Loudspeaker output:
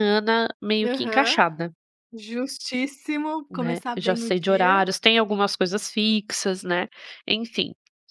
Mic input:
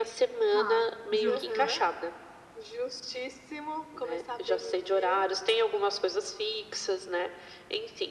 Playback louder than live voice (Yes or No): Yes